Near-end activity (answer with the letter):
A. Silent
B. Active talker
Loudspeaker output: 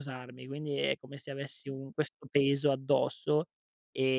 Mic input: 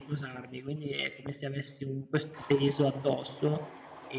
A